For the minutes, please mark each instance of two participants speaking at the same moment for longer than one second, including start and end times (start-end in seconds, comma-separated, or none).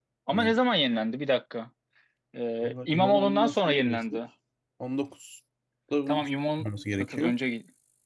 2.6-4.2